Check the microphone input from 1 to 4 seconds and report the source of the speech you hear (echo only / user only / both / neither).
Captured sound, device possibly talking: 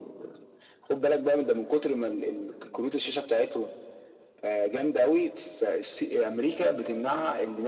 echo only